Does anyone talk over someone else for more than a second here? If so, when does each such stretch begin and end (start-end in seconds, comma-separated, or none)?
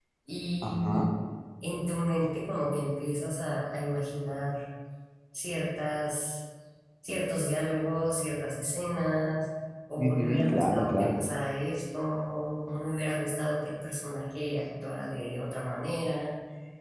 10.0-11.2